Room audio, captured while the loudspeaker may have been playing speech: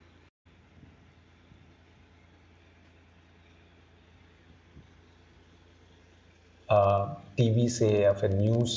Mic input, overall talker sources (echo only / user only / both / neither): user only